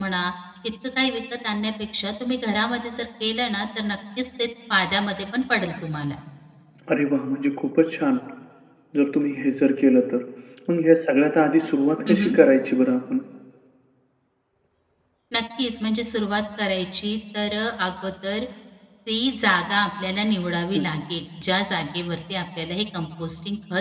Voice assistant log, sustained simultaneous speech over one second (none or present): none